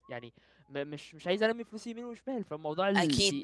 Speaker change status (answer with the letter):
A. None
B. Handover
B